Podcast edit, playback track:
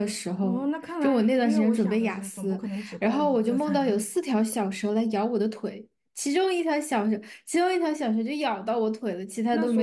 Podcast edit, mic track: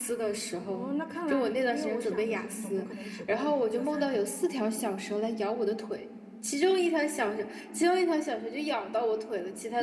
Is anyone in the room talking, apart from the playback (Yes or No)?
No